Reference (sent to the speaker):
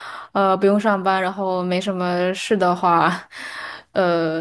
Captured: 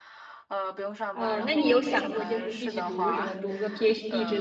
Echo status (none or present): present